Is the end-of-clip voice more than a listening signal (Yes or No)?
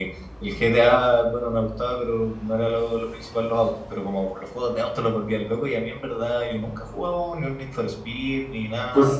Yes